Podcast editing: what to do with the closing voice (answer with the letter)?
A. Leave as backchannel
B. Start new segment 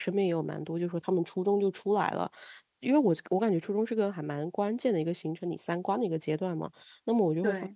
A